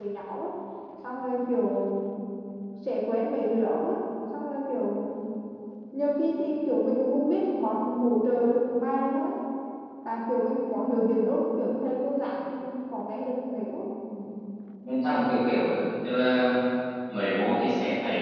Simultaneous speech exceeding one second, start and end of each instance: none

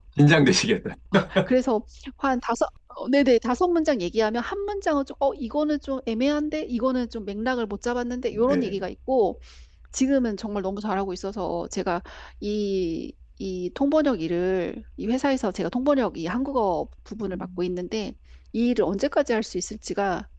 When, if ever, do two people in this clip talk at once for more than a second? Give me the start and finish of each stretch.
none

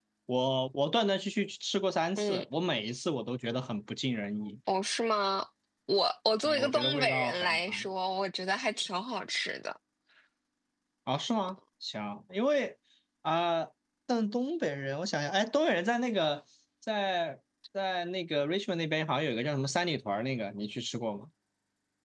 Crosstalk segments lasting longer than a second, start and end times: 6.4-7.8

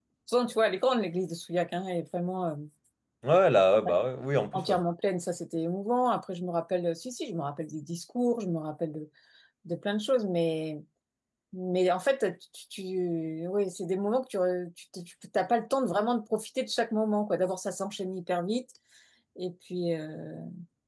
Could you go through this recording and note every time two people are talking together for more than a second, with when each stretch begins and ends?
none

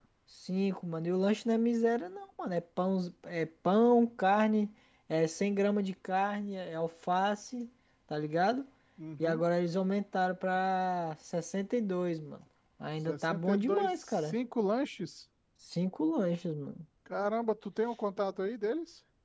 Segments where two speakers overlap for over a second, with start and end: 13.1-14.3

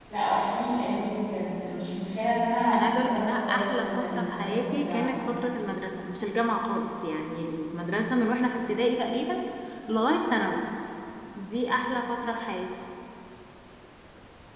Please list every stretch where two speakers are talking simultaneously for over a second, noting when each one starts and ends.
2.7-5.2

